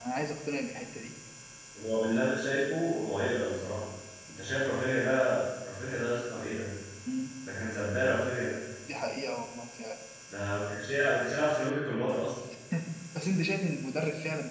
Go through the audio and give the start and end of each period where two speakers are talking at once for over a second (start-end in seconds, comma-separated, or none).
none